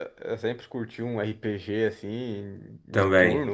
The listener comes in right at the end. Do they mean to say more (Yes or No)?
No